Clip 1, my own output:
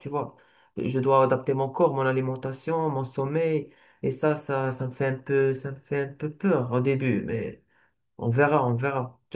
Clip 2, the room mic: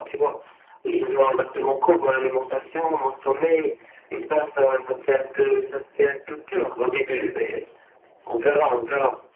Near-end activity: none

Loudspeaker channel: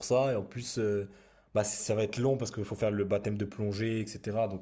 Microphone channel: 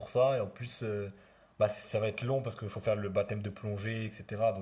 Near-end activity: none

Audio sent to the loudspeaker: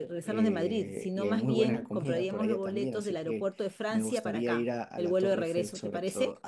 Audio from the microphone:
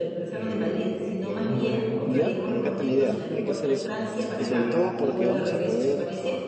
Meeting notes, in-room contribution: present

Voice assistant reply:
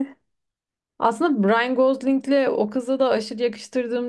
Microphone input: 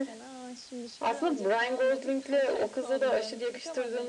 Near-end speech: present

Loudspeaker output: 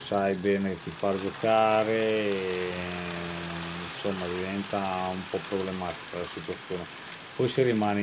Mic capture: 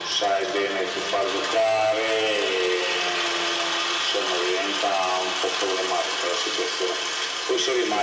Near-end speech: none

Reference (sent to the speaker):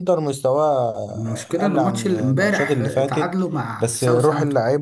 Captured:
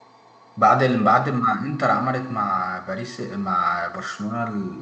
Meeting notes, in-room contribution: present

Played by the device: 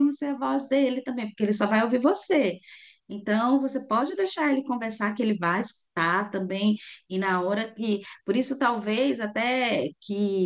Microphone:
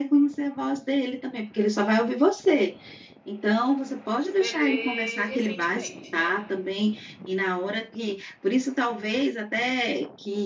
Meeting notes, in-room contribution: present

